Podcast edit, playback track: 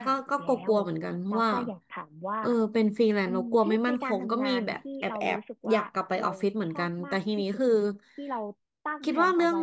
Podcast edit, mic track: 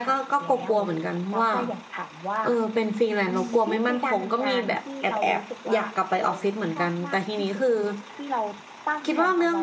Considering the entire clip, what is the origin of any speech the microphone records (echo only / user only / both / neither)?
echo only